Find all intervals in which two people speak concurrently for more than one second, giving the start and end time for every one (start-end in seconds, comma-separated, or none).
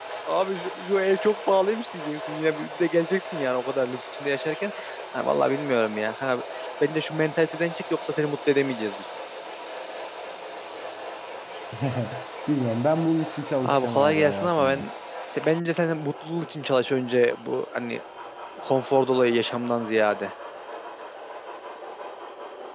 13.6-14.8